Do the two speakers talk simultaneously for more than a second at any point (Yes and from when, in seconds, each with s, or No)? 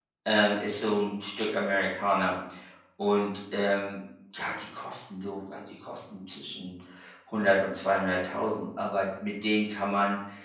No